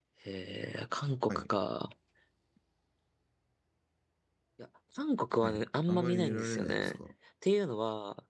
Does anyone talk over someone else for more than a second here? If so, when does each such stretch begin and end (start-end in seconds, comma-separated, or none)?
5.4-7.0